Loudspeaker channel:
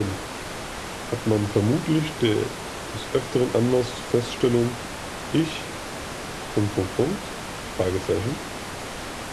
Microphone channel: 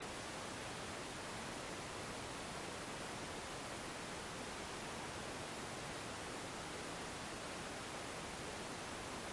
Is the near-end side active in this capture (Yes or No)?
No